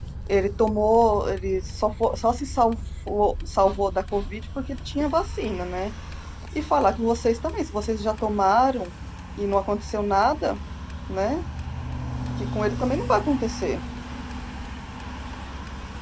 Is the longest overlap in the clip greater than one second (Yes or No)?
No